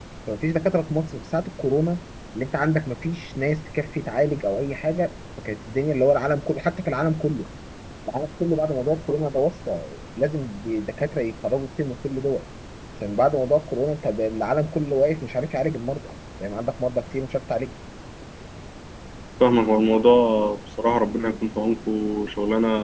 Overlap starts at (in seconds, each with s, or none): none